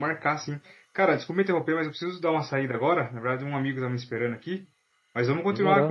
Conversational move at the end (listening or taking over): listening